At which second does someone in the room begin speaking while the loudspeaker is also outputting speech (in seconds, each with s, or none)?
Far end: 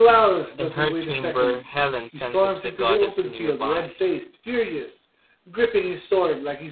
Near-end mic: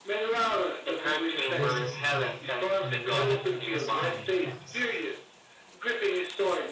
1.4 s